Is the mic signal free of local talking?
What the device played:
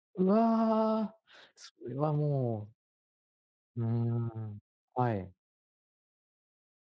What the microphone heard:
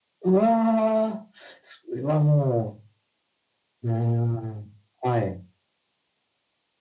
Yes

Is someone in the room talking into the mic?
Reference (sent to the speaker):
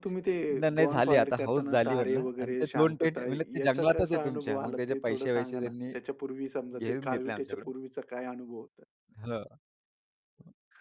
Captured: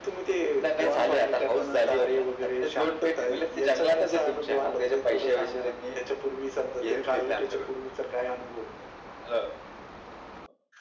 No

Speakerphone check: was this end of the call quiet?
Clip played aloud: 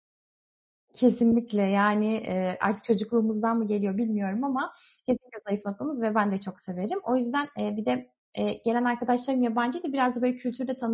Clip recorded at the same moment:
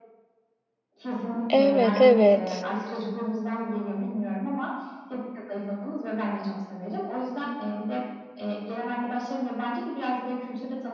No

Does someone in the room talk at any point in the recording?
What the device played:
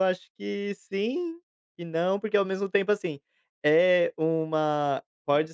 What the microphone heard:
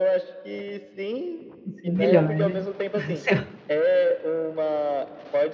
Yes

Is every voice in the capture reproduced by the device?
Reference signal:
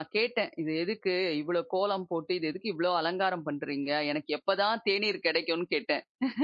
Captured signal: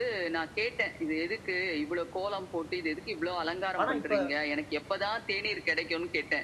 No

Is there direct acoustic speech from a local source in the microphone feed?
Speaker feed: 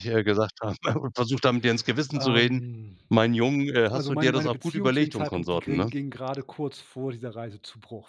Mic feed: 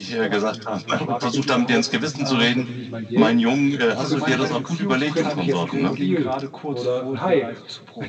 Yes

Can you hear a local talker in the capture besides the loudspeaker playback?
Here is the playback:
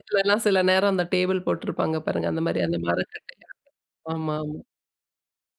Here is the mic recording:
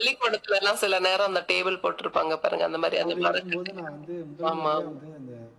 Yes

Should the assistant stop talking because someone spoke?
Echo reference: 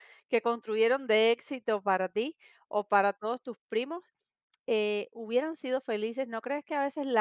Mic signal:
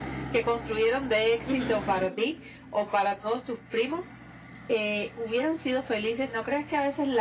Yes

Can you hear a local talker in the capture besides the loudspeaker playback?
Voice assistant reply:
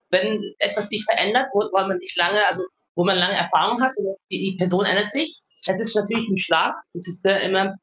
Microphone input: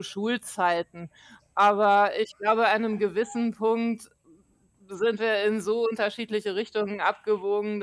Yes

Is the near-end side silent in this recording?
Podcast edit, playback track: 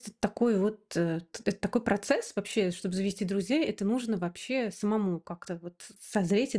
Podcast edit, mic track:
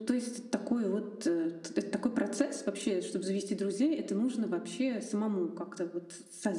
Yes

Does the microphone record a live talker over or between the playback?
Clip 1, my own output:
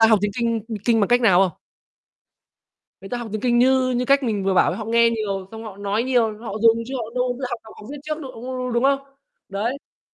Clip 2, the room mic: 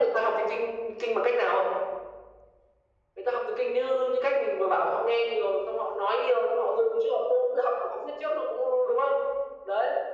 No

